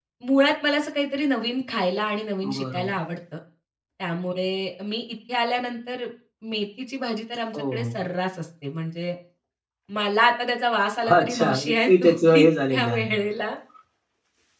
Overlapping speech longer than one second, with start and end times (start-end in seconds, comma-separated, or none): 11.2-13.2